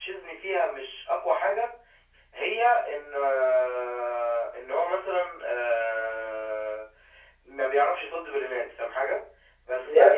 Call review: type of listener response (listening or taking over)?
taking over